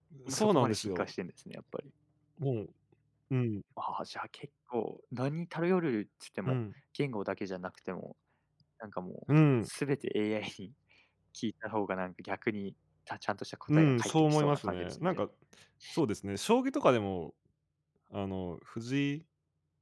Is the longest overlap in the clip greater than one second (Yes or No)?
Yes